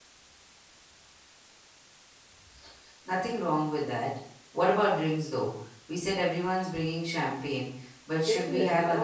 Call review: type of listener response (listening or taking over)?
taking over